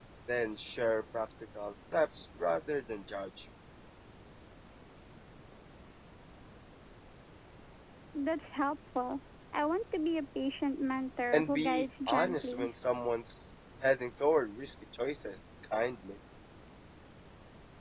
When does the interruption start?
11 s

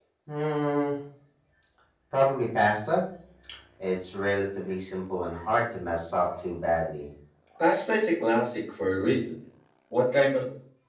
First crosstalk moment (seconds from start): none

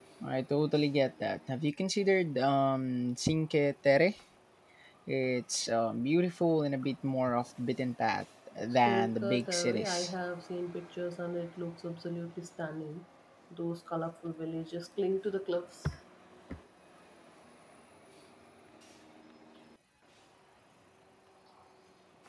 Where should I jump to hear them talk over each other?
9 s

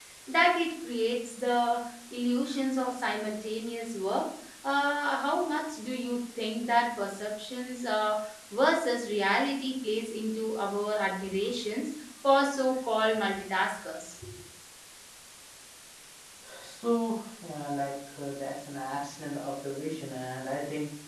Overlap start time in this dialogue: none

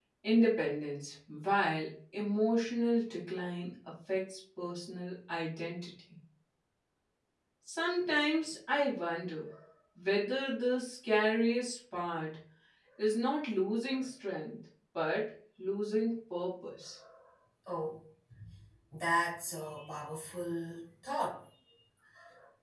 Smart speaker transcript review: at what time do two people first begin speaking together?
none

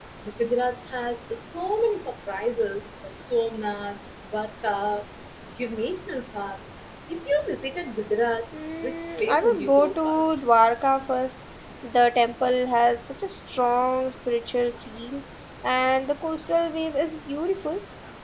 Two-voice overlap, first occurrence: 9 s

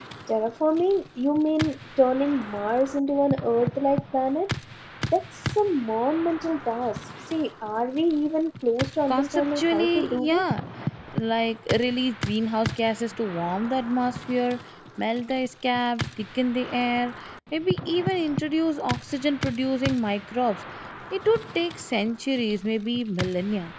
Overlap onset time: 9 s

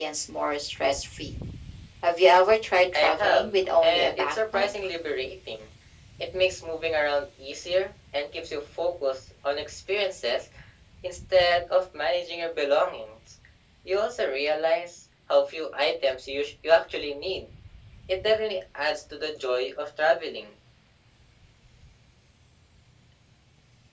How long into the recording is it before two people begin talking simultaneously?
3 s

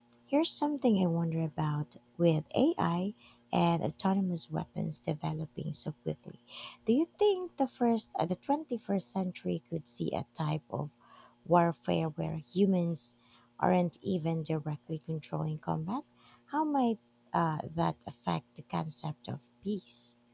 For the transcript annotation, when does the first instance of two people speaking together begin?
none

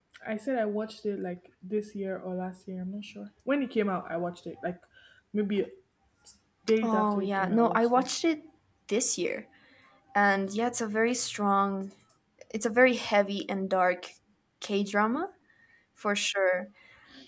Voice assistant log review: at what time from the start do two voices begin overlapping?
7 s

